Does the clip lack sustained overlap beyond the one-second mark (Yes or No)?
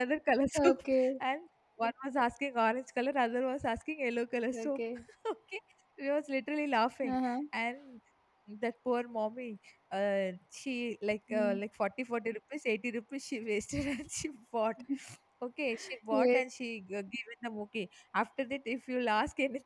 Yes